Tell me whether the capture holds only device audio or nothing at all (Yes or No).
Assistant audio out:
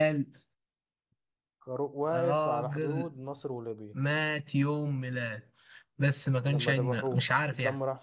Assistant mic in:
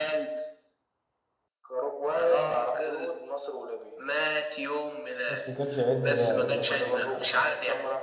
No